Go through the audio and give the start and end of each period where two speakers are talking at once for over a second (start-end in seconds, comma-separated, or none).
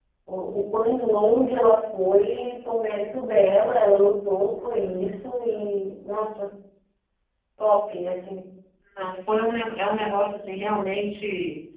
none